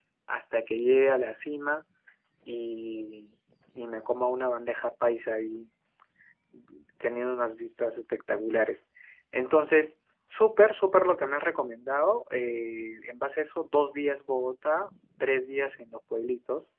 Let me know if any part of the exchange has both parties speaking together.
No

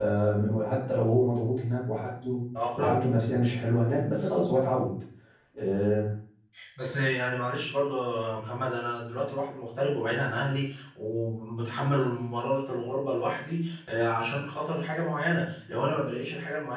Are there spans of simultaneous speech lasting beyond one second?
No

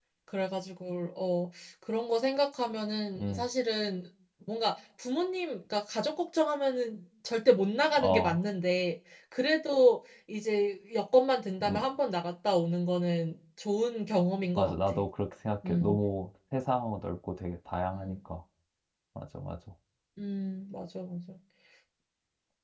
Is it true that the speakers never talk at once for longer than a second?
Yes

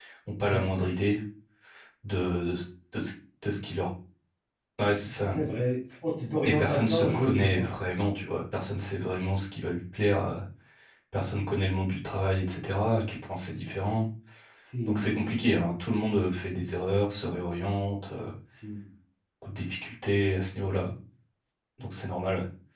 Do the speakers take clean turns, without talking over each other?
No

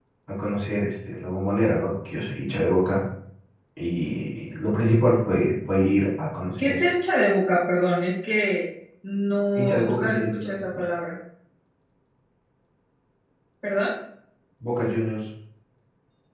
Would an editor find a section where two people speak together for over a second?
Yes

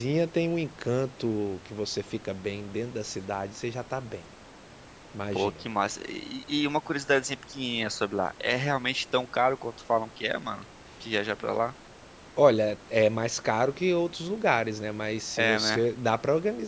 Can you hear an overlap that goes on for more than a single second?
No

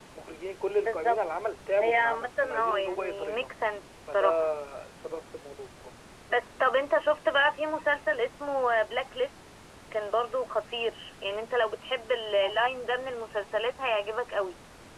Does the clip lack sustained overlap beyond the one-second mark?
No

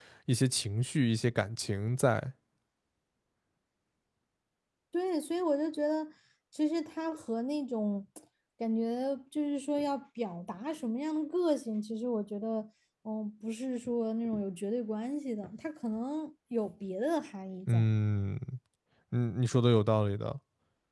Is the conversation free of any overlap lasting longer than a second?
Yes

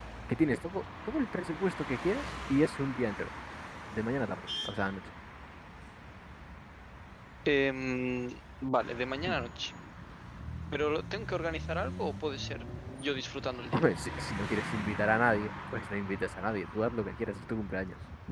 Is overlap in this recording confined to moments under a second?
Yes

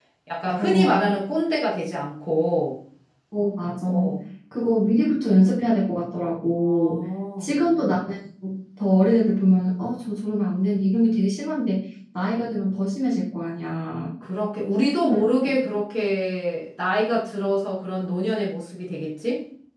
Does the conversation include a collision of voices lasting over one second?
No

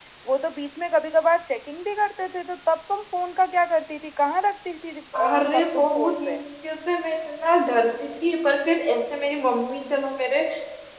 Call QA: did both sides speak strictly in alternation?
No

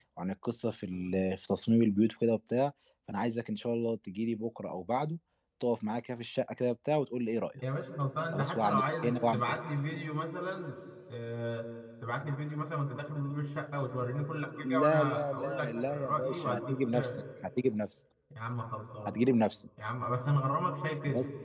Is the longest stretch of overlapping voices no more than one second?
No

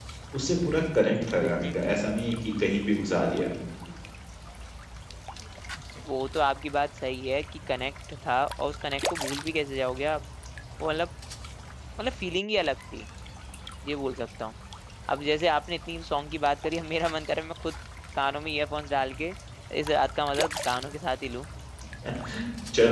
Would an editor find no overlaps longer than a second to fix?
Yes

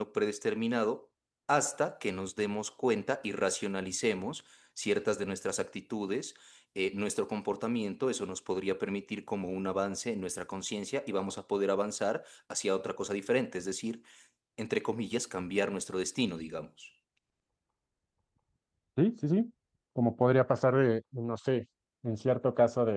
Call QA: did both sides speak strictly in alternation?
Yes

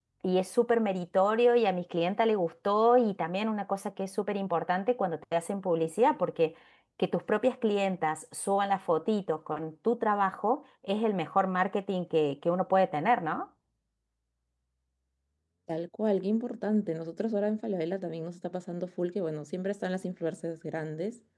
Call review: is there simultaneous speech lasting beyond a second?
No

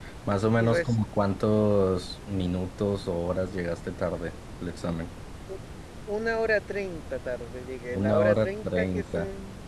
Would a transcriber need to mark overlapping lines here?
Yes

